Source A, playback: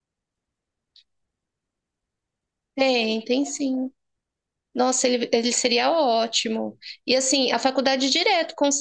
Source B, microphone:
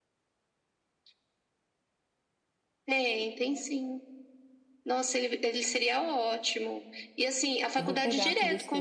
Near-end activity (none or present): present